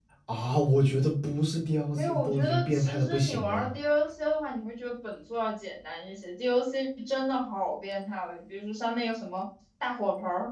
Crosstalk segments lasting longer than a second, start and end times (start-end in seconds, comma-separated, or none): 1.9-3.7